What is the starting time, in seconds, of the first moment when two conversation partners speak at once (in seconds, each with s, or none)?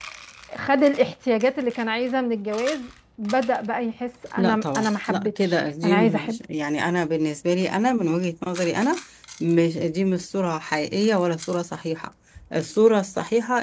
4.4 s